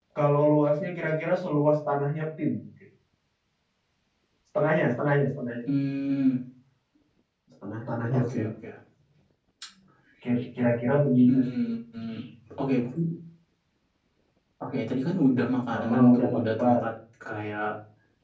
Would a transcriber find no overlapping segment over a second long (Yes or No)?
No